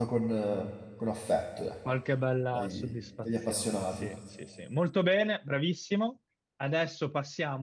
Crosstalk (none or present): present